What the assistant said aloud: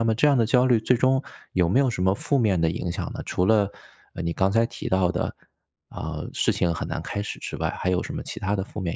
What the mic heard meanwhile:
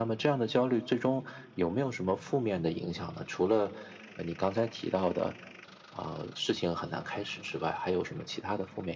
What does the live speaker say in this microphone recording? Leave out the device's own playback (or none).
none